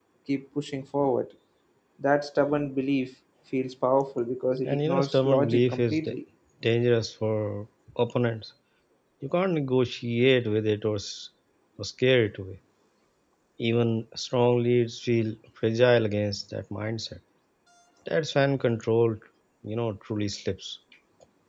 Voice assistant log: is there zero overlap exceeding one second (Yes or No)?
No